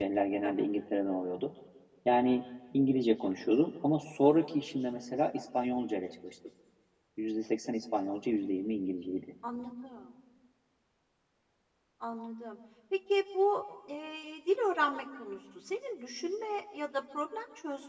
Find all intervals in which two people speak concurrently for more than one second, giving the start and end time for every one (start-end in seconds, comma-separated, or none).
none